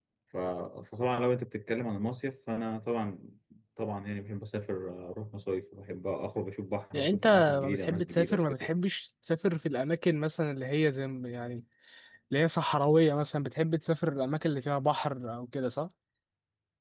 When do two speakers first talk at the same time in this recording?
6.9 s

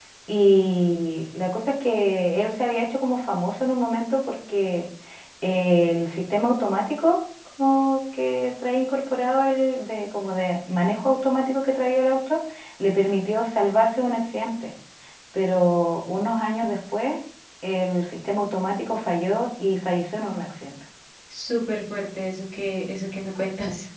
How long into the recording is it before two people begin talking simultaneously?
none

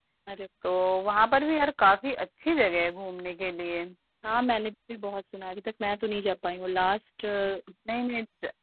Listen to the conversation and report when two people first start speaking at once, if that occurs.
none

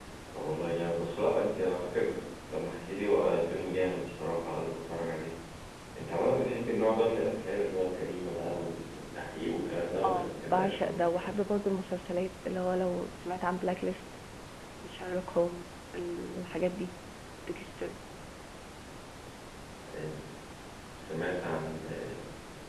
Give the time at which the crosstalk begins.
10.0 s

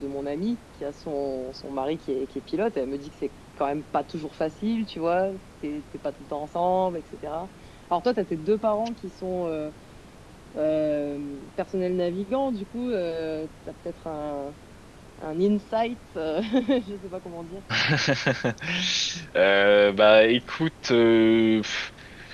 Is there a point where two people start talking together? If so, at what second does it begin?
none

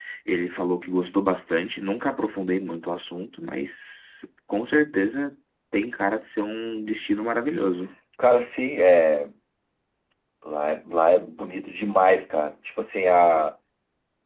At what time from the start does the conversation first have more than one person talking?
none

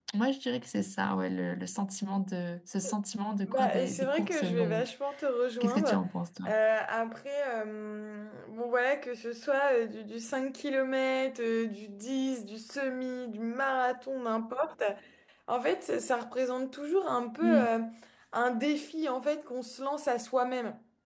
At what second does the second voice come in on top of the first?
3.5 s

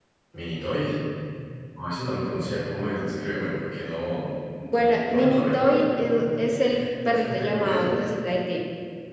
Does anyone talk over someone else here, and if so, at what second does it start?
4.6 s

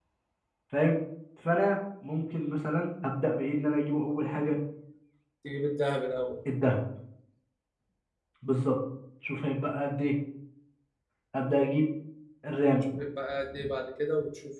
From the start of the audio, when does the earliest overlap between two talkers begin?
none

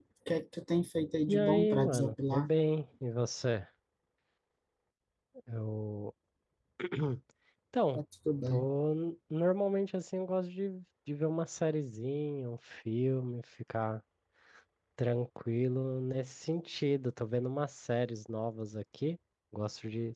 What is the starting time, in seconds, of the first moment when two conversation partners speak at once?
1.3 s

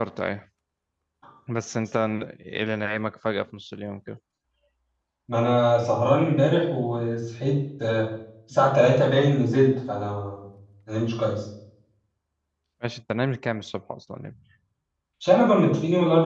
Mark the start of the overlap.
none

